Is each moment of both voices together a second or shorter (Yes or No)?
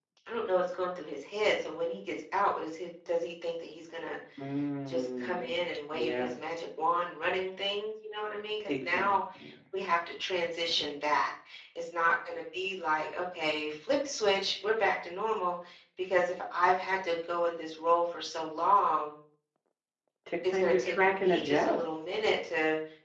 No